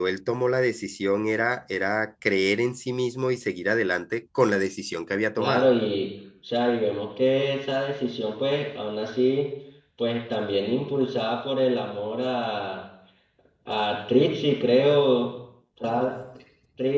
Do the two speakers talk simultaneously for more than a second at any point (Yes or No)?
No